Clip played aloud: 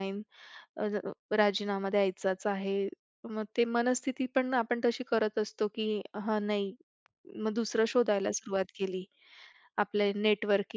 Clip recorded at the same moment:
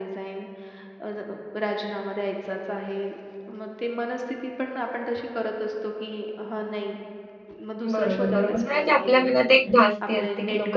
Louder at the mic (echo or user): user